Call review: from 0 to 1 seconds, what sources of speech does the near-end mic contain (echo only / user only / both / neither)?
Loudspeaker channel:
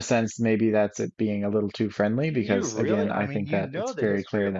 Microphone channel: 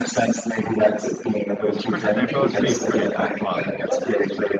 echo only